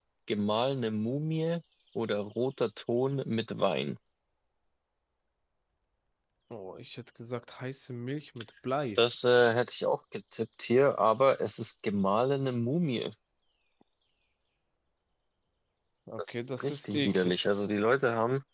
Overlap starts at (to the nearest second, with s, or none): 16 s